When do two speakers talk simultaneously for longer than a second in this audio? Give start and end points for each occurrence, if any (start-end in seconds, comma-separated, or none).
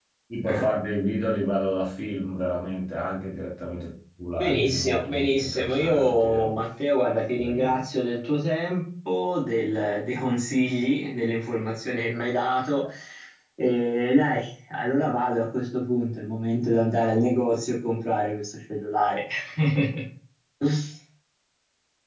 4.4-6.5